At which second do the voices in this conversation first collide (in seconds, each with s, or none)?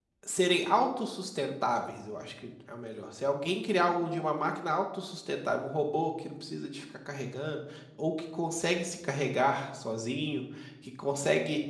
none